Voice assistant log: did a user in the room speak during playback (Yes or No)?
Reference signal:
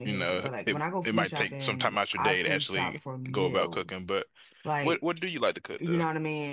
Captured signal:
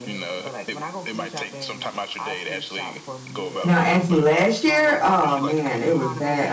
Yes